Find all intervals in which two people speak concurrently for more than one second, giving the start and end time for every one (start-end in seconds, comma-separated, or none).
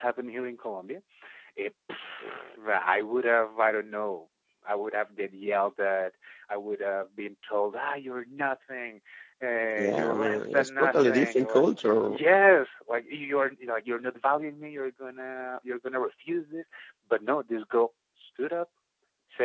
9.8-11.7